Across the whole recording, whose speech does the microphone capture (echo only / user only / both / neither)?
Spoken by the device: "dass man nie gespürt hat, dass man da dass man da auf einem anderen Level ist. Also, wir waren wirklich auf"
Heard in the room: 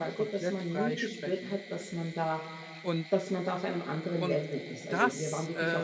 both